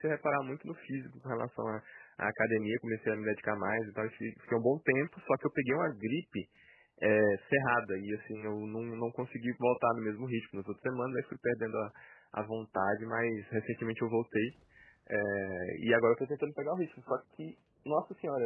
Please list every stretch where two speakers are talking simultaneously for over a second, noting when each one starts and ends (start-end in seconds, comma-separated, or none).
none